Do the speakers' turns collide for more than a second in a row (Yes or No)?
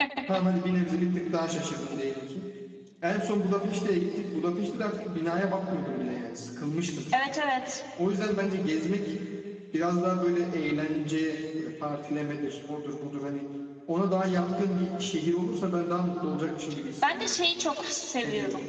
No